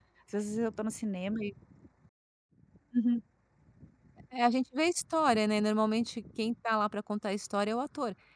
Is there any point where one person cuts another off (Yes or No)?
No